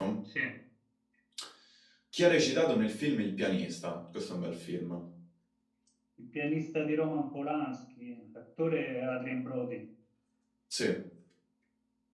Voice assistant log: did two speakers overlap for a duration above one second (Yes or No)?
No